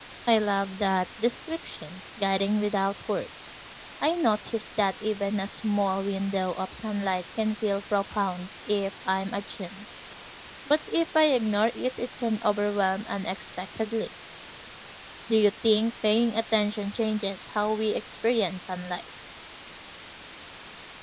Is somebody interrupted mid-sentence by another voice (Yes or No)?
No